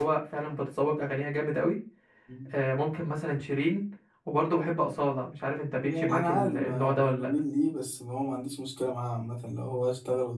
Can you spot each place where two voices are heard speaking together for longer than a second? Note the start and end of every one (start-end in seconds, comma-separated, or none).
5.8-7.3